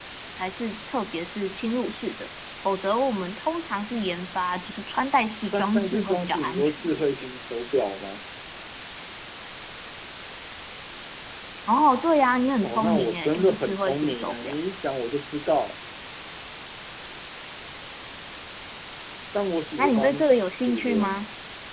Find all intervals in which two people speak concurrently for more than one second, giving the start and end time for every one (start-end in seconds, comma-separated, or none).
5.4-7.3, 12.6-14.6, 19.8-21.2